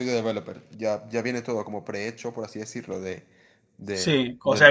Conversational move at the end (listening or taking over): taking over